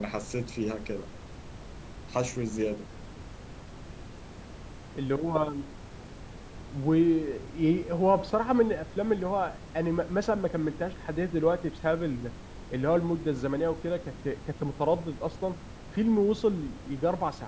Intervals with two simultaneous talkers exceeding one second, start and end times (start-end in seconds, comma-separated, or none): none